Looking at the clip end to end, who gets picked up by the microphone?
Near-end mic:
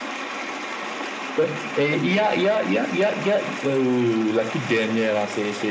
echo only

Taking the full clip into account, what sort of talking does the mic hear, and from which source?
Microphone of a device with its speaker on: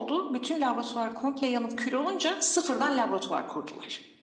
echo only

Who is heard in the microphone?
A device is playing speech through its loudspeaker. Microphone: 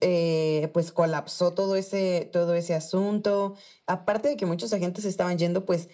echo only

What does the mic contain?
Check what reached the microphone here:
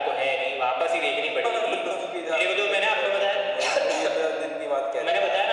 echo only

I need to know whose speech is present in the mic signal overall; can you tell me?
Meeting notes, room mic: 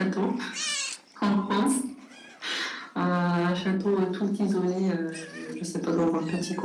echo only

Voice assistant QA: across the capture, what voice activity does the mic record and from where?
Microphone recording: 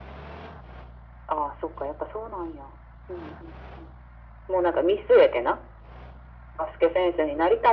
echo only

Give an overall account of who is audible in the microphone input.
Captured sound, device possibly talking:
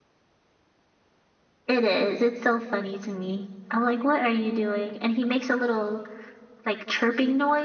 user only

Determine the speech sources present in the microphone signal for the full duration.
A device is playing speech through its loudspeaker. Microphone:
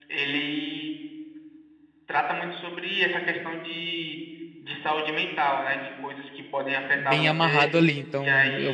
both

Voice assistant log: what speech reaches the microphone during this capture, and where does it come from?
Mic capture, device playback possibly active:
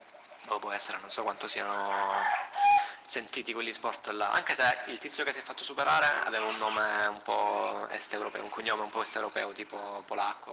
echo only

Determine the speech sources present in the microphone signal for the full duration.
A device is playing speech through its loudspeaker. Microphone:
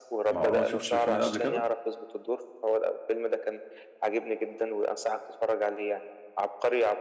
both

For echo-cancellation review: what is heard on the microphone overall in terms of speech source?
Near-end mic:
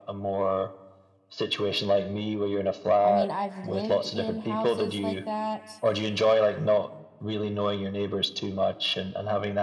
both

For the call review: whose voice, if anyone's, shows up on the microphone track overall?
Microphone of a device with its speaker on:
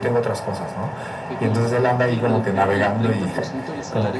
both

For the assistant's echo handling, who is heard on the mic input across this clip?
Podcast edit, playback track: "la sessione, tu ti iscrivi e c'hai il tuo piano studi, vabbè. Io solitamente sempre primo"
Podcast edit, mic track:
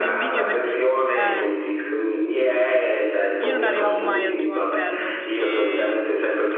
both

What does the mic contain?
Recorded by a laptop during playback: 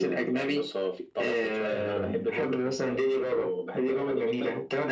both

